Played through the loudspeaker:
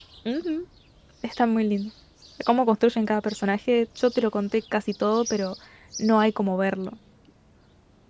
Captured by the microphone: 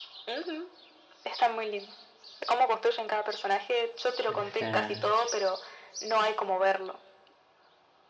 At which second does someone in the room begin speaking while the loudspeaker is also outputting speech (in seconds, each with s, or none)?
4.3 s